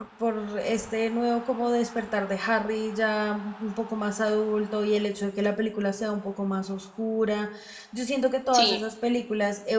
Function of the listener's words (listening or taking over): listening